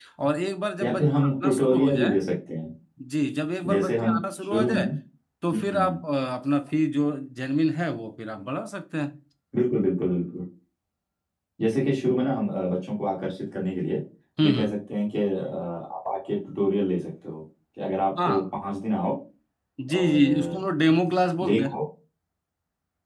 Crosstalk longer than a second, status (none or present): present